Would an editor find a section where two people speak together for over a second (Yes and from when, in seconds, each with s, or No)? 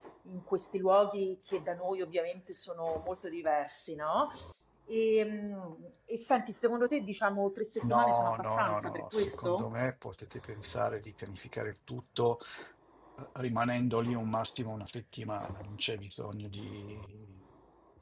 Yes, from 7.8 s